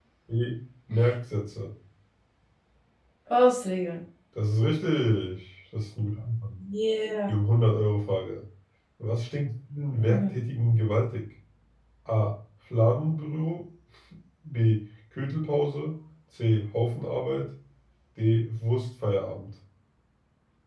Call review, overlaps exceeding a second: none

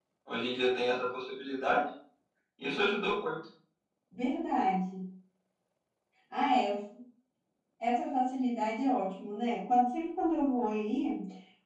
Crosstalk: none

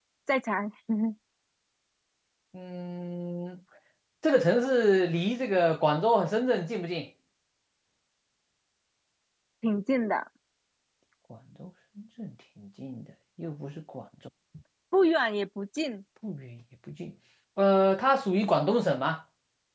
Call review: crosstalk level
none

